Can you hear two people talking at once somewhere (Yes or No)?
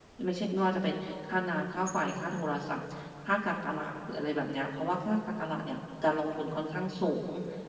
No